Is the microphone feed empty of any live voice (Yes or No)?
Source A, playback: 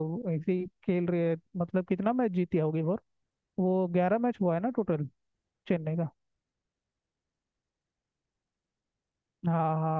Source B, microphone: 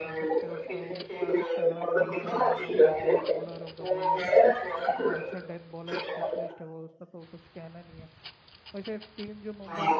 No